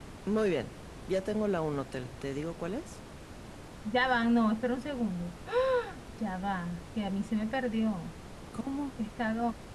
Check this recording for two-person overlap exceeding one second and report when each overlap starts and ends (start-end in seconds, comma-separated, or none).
none